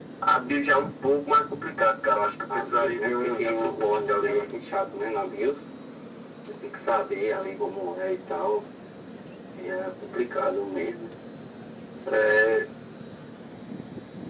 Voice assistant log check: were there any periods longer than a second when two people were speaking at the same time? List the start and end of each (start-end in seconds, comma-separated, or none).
2.5-4.5